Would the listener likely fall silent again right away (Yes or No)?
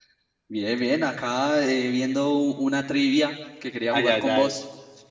No